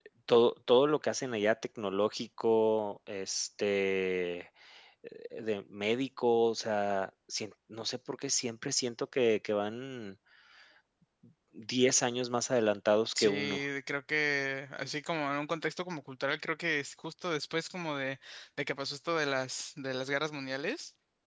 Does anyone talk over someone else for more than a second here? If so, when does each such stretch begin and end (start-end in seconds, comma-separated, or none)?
none